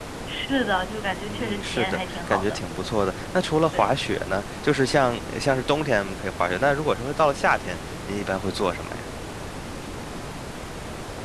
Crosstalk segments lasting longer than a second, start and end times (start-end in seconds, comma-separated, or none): 1.3-2.6